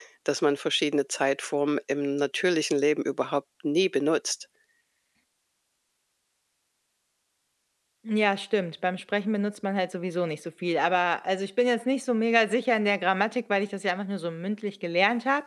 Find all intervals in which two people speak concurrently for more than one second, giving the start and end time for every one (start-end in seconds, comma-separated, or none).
none